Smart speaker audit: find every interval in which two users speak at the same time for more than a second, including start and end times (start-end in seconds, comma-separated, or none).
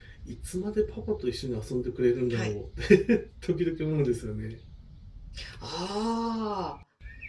none